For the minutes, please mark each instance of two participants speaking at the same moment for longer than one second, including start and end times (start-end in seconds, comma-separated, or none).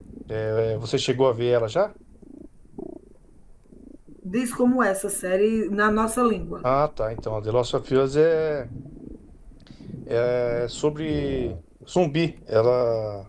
none